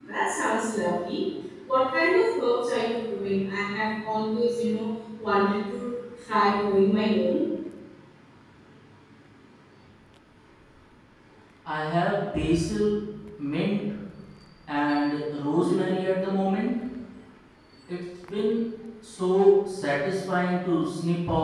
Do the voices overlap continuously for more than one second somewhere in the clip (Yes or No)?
No